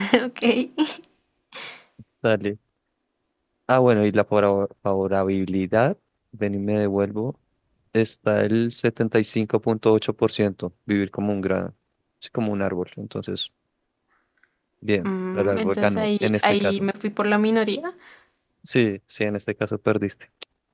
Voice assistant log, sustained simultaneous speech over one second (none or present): present